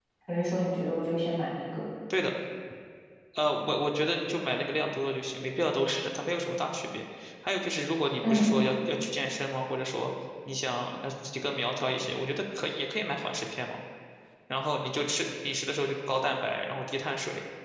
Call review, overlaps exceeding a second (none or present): none